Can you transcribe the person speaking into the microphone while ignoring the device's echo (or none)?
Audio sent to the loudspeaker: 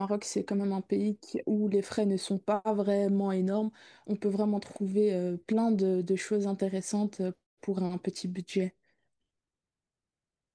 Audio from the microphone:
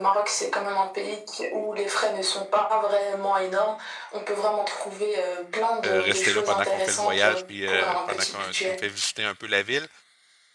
euh, rester là pendant qu'on fait le voyage, puis euh, pendant que tu me fais visiter un peu la ville.